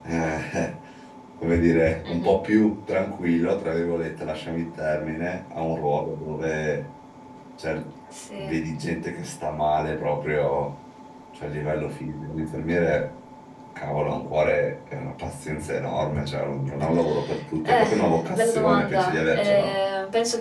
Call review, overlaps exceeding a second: present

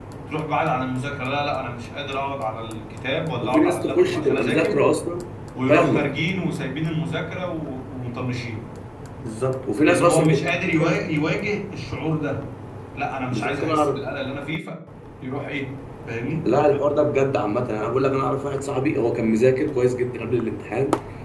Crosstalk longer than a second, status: present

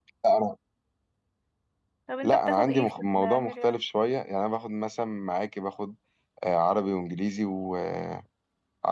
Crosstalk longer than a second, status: present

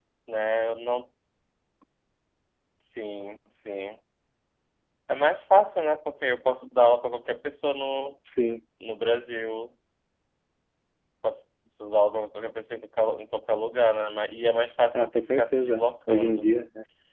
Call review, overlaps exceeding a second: present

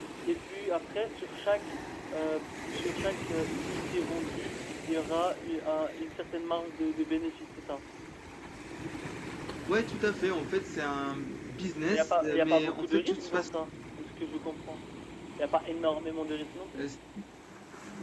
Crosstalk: present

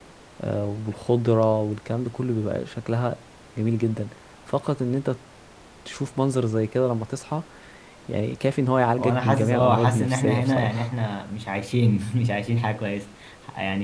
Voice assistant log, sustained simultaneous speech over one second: present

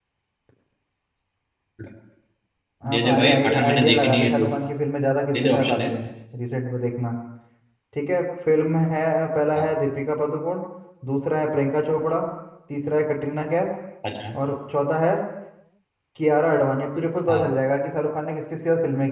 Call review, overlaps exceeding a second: present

